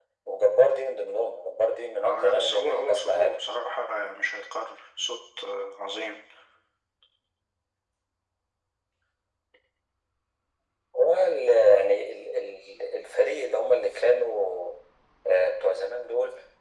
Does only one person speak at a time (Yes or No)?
No